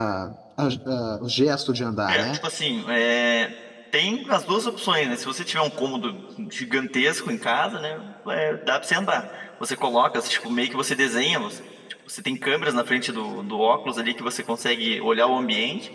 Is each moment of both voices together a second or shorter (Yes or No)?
Yes